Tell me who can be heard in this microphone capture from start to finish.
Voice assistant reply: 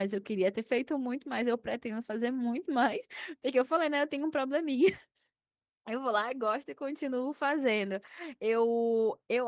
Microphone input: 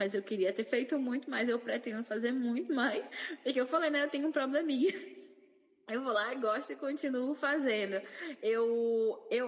echo only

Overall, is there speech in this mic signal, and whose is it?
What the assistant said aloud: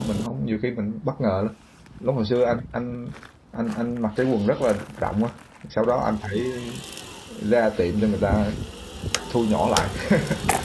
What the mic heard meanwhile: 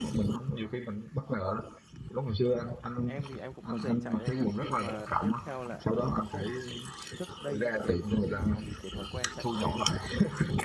both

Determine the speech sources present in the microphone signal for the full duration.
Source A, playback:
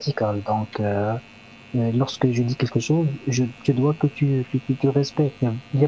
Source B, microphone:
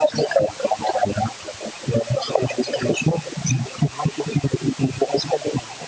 echo only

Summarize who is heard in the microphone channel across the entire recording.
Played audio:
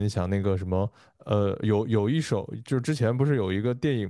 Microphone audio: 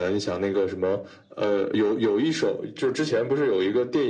echo only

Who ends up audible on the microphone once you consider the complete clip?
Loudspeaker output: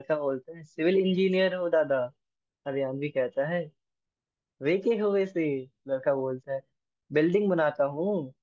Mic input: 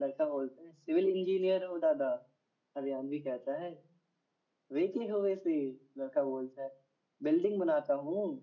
echo only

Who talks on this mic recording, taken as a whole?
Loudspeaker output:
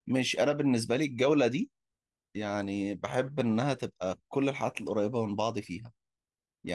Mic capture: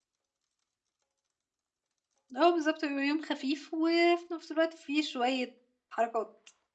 user only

